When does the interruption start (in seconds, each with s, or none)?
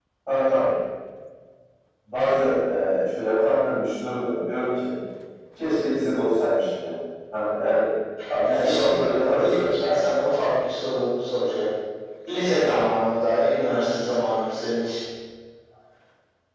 8.5 s